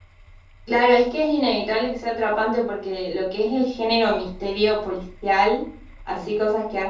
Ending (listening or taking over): listening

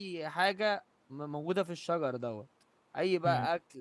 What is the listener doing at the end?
listening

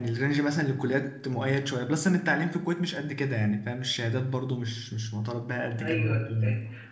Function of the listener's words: taking over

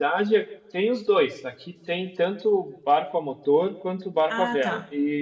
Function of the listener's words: listening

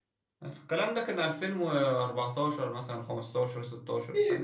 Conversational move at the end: taking over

